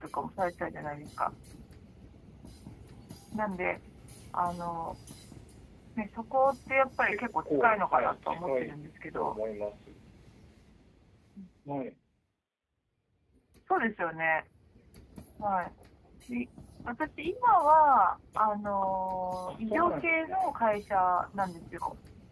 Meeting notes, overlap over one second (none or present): present